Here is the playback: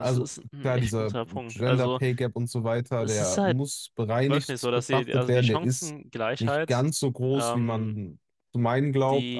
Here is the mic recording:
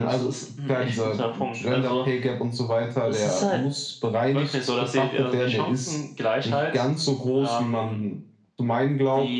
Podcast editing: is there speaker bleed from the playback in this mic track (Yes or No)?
Yes